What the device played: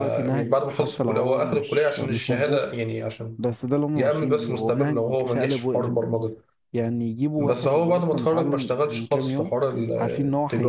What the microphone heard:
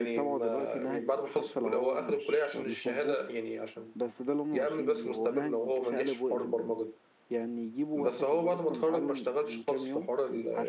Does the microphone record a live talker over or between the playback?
No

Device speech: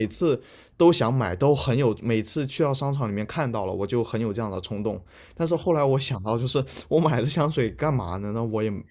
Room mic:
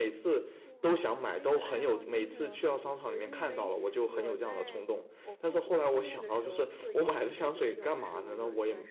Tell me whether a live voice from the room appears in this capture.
Yes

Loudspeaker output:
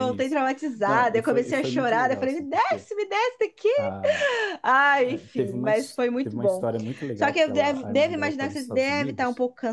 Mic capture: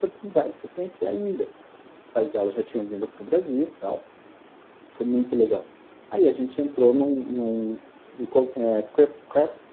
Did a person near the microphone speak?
Yes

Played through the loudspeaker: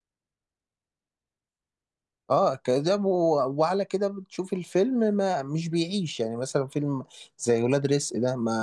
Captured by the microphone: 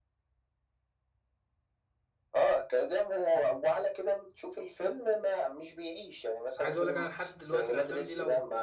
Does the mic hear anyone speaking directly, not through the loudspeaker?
Yes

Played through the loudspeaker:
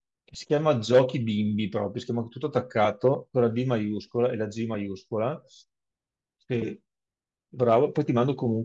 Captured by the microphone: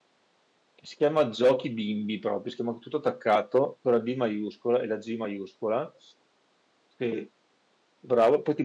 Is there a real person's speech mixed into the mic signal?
No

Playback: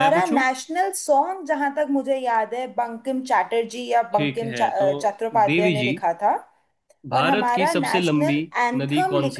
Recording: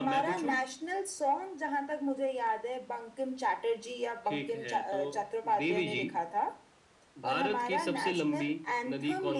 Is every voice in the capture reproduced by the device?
Yes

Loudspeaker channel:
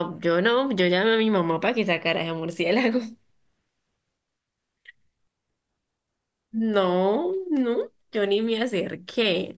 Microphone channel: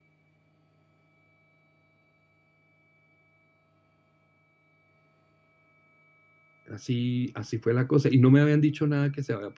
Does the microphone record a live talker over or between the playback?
Yes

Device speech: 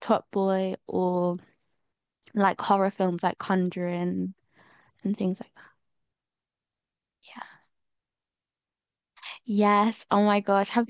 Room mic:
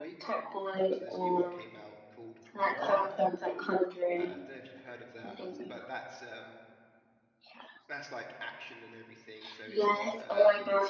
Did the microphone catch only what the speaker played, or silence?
No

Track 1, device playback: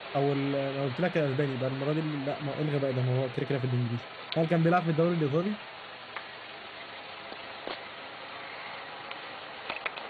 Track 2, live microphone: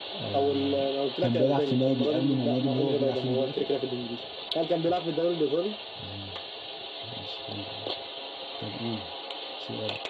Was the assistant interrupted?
Yes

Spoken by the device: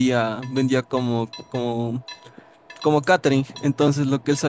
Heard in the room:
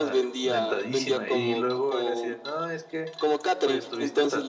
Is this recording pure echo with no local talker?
No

